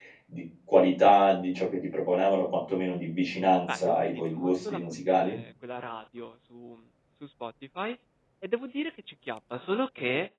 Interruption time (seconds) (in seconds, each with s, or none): 3.7 s